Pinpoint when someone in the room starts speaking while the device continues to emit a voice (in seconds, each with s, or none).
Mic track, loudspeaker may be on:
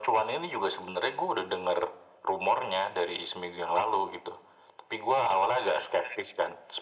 none